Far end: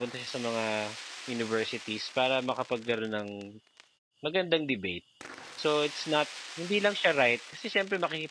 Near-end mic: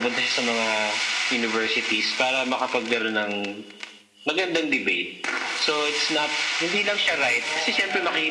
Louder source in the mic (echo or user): echo